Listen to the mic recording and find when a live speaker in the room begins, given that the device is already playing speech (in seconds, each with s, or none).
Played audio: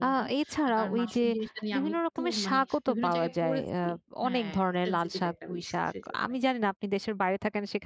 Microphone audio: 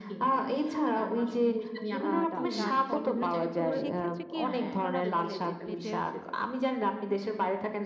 2.0 s